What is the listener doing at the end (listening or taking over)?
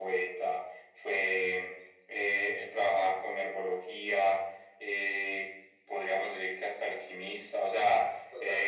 listening